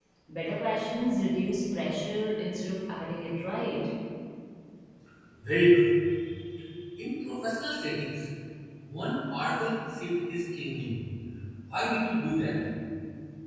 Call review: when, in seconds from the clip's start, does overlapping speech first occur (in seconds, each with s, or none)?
none